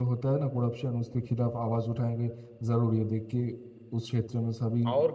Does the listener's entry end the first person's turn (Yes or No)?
Yes